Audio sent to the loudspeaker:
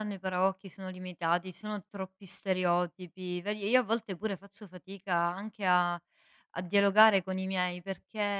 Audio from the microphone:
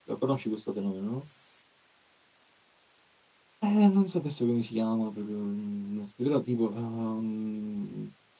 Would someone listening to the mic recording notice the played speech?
No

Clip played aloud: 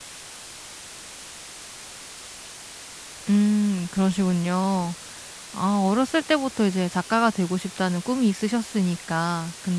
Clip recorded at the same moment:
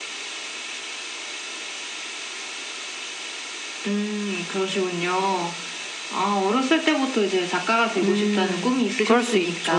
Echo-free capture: No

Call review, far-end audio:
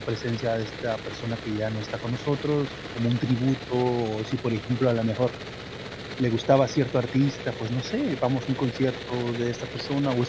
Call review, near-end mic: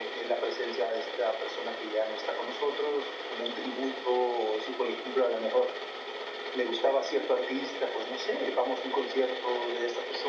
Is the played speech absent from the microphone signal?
No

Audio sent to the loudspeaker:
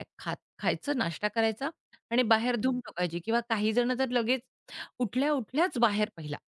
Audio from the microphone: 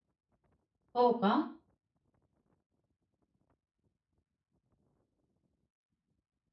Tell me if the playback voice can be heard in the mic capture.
No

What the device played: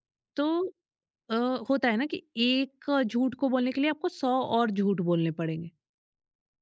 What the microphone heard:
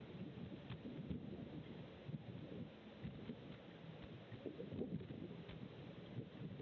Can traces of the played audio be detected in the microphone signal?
No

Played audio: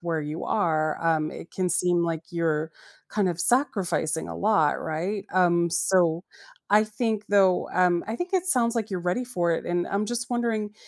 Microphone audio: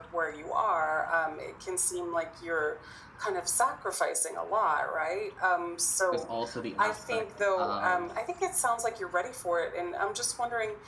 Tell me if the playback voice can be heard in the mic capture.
Yes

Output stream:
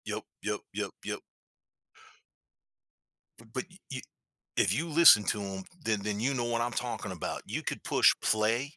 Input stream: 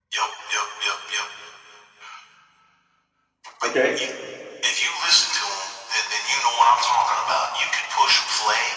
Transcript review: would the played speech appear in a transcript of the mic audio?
Yes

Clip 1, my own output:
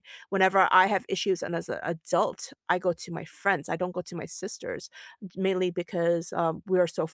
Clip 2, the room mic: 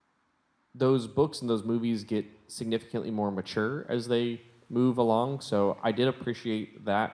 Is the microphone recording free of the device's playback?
Yes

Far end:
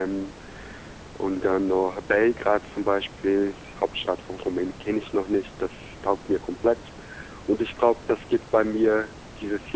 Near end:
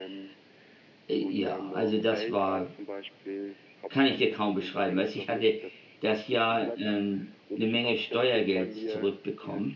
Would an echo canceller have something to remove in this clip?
Yes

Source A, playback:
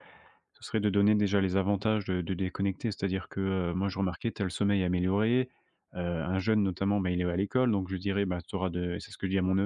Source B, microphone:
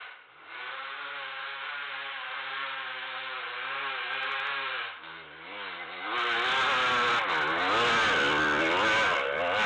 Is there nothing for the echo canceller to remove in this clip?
Yes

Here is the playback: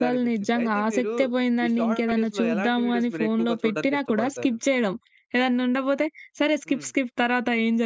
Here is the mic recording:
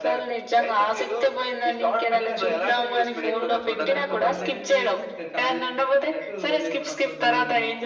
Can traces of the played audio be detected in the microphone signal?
Yes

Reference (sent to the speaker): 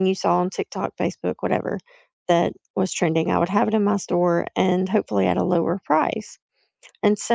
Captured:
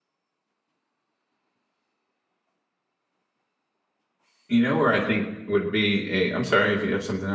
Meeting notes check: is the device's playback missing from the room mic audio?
Yes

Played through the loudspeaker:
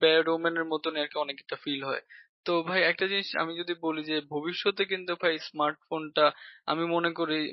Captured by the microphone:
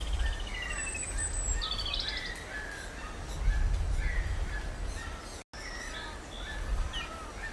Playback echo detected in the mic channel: No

